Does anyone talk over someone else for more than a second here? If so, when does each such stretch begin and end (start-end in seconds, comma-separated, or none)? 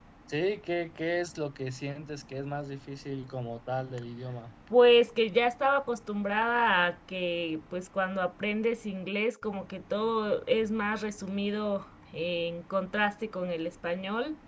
none